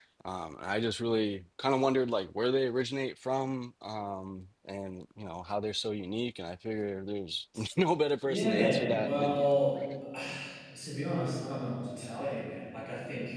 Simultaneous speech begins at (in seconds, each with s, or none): 8.2 s